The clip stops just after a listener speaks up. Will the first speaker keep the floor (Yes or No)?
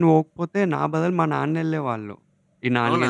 Yes